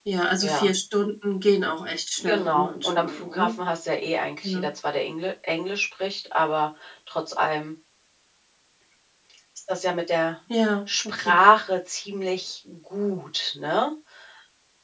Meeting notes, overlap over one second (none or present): present